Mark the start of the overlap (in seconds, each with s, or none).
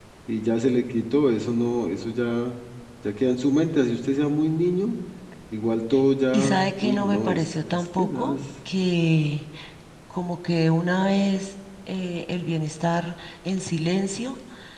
6.3 s